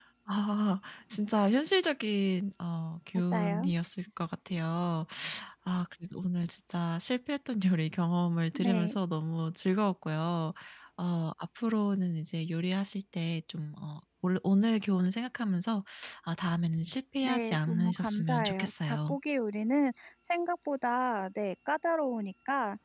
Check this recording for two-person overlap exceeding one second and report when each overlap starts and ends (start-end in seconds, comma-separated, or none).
17.2-19.2